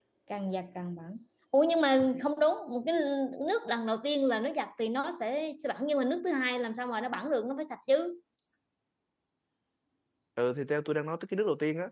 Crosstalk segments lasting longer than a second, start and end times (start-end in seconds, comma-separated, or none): none